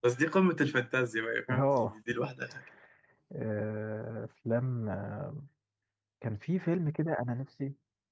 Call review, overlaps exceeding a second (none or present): none